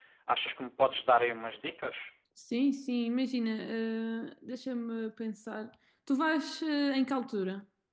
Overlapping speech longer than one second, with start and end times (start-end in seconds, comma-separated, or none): none